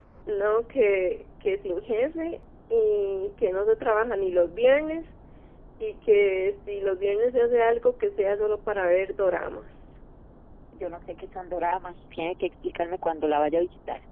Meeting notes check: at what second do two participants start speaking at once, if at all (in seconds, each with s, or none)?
none